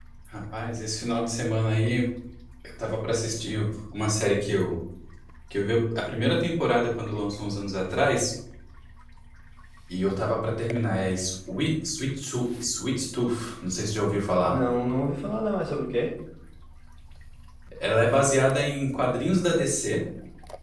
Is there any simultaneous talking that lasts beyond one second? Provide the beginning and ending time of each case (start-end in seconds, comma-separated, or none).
none